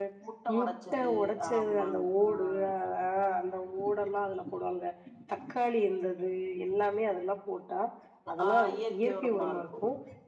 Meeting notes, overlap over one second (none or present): present